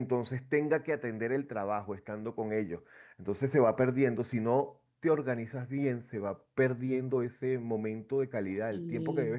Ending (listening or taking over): listening